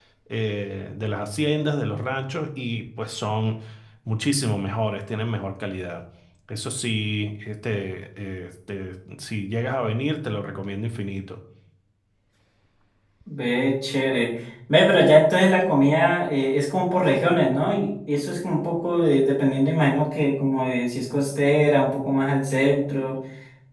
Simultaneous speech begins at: none

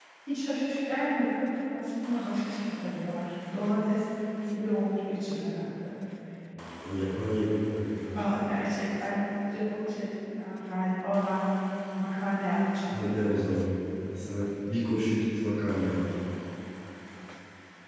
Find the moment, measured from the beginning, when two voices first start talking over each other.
none

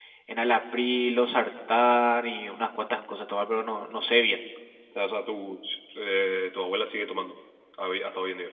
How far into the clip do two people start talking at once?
none

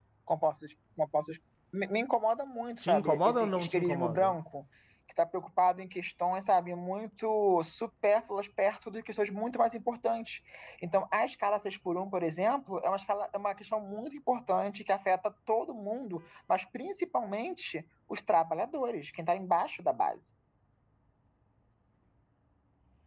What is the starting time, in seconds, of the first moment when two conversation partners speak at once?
2.8 s

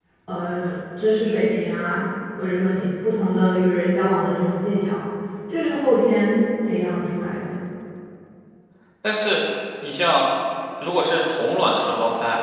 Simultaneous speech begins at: none

